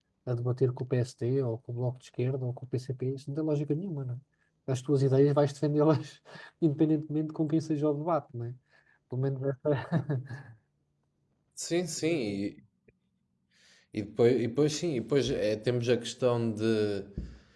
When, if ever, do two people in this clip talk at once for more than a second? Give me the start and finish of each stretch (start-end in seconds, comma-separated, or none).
none